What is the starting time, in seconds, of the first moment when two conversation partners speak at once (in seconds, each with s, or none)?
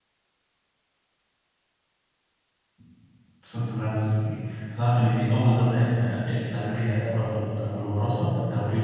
7.0 s